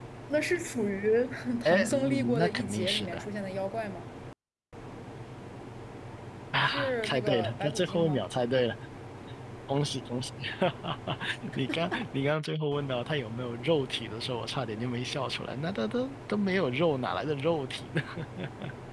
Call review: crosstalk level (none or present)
present